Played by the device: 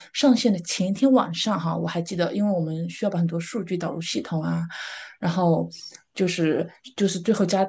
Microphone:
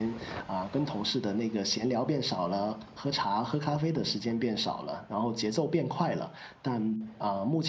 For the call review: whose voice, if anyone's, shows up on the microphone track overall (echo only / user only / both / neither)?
user only